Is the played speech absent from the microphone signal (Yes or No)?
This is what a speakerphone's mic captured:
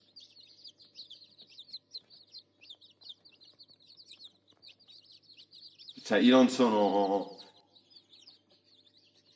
Yes